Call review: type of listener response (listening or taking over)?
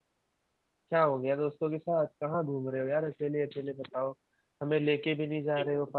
listening